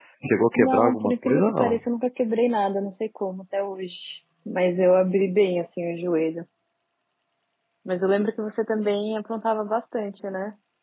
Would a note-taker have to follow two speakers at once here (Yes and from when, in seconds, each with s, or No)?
Yes, from 0.6 s